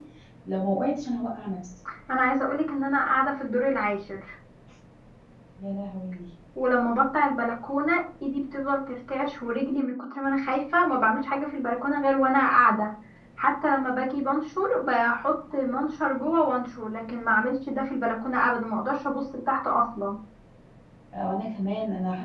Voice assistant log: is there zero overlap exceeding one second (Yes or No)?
Yes